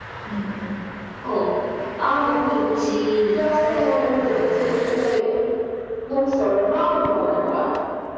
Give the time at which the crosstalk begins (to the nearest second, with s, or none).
3 s